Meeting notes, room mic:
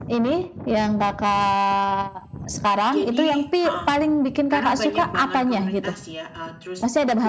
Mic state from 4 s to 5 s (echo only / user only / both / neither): both